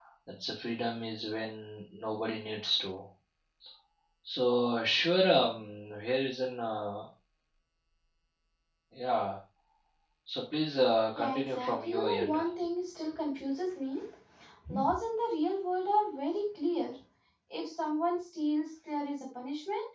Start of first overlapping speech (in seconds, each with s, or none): 11.1 s